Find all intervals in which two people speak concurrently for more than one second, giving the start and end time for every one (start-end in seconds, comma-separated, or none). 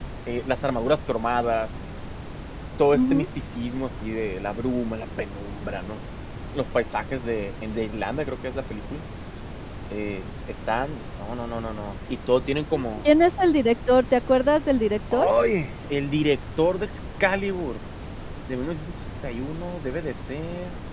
none